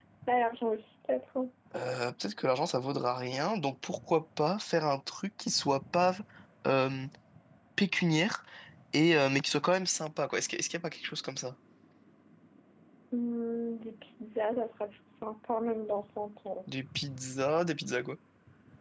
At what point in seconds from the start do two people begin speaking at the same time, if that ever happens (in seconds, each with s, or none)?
none